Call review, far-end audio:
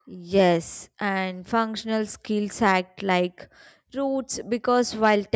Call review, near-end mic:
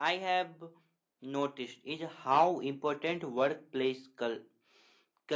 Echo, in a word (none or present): none